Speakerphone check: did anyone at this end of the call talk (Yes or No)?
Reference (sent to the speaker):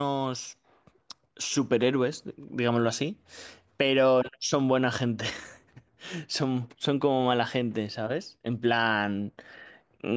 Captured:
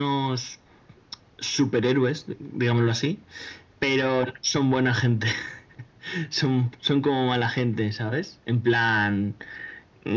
No